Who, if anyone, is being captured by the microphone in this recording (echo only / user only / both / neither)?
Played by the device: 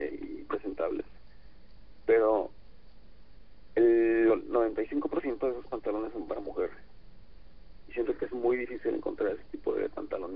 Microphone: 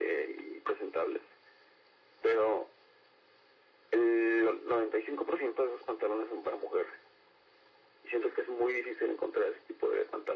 echo only